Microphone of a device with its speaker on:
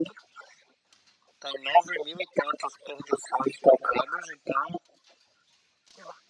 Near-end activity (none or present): none